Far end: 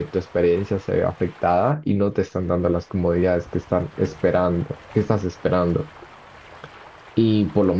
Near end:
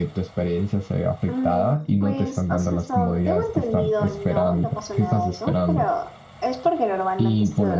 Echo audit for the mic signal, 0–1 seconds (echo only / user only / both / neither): echo only